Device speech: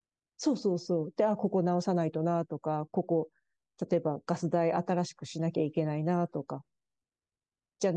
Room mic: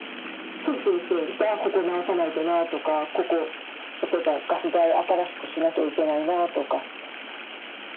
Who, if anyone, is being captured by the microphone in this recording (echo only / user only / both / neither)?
echo only